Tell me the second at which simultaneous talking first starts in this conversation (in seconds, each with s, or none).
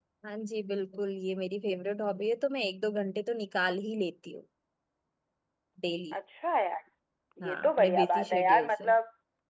7.4 s